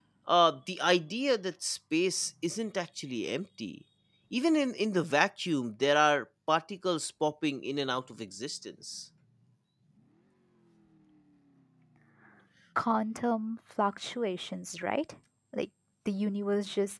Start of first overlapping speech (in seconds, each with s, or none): none